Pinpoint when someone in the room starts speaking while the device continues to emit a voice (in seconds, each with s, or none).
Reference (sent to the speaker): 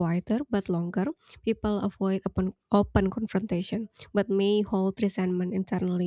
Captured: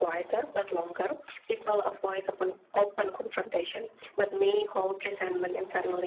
none